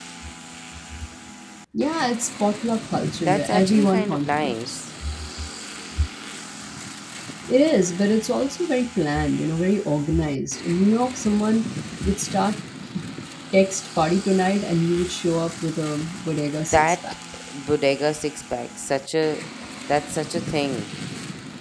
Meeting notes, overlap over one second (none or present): present